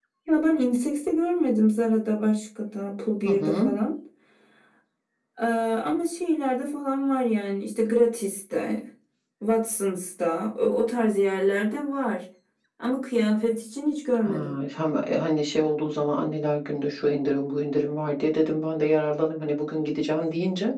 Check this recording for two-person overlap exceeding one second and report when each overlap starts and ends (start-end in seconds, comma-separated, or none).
none